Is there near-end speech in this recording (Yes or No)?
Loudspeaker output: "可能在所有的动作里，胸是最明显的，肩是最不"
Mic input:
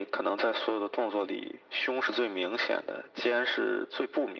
No